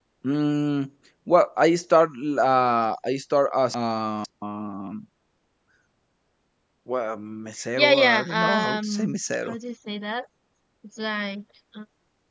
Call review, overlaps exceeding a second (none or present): present